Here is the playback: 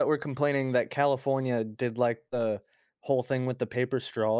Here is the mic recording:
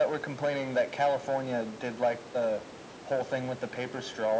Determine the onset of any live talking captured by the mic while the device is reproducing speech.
none

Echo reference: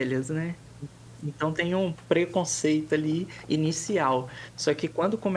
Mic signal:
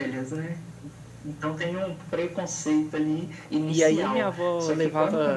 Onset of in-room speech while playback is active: 3.7 s

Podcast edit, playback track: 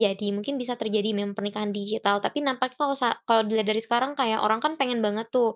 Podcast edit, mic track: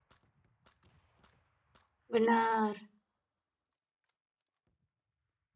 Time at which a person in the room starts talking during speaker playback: 2.1 s

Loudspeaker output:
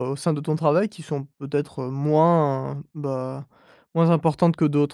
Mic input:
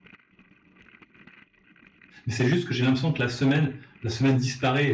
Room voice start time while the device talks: 2.2 s

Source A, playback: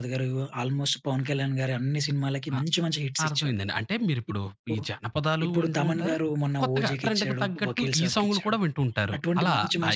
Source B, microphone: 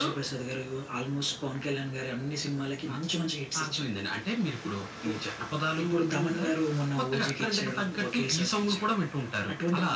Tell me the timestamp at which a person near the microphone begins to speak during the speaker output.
none

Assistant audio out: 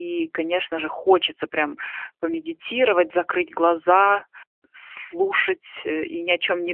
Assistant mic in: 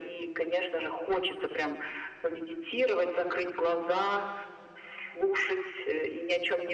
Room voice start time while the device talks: none

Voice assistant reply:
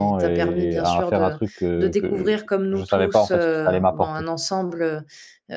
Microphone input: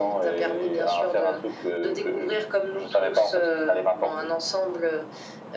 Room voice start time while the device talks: none

